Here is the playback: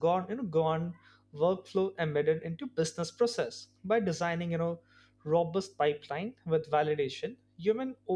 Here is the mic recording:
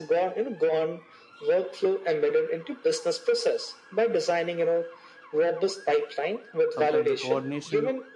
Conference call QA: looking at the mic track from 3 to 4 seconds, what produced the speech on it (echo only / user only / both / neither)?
echo only